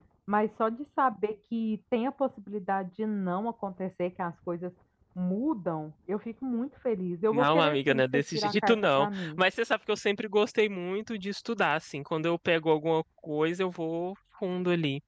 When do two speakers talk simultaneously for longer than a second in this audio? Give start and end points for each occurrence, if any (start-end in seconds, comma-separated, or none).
7.3-9.4